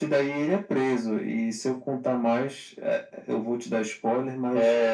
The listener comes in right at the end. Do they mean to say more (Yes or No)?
Yes